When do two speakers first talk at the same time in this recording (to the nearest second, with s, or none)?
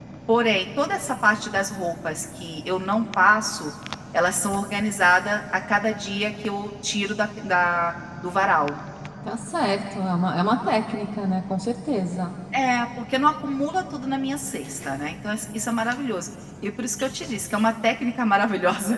none